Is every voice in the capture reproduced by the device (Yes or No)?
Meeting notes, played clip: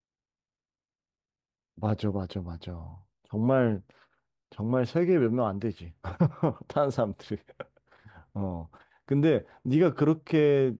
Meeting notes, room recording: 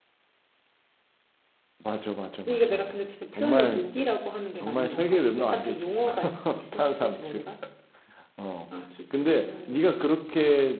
No